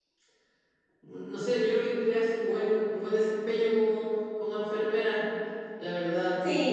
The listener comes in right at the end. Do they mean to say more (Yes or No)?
Yes